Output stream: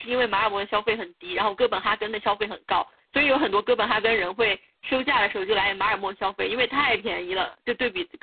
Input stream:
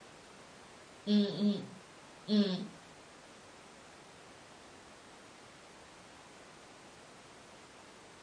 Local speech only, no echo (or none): 嗯嗯嗯。